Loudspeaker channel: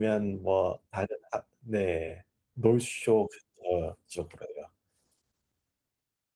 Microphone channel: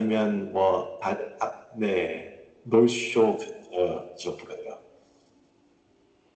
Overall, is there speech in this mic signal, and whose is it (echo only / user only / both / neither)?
echo only